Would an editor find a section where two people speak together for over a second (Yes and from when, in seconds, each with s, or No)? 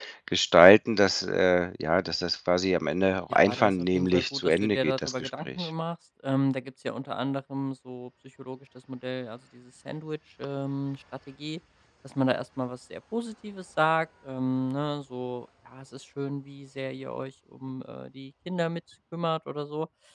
Yes, from 3.3 s